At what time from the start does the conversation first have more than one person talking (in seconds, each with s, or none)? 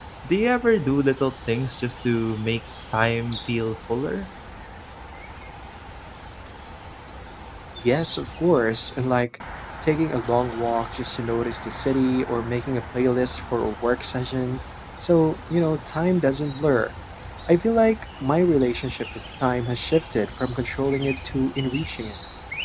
none